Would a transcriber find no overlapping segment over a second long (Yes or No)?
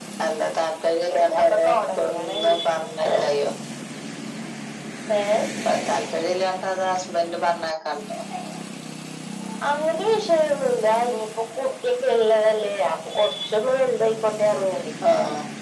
No